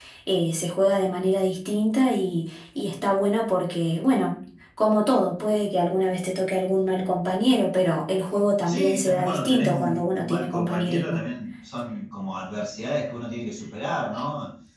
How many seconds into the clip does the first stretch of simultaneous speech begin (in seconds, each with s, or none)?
8.7 s